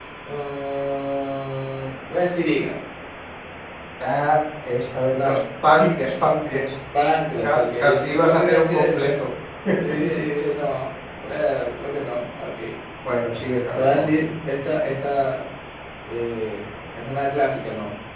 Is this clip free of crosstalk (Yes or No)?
No